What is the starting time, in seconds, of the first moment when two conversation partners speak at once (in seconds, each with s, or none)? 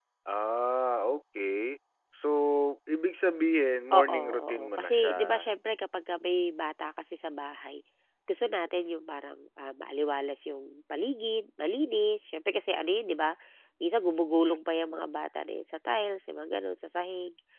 3.9 s